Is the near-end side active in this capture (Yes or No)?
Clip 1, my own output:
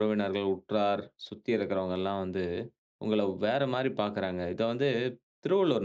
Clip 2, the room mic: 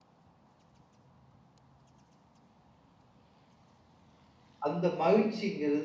Yes